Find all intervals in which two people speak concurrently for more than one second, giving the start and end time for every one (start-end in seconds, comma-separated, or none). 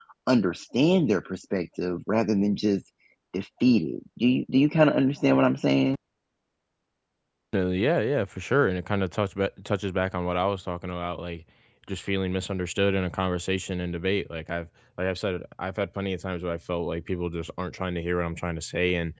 none